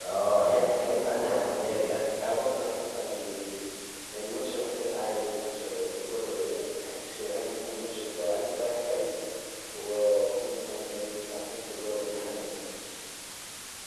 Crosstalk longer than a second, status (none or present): present